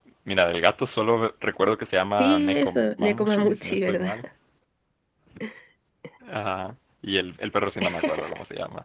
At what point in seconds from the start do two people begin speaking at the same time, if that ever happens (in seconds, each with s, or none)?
2.2 s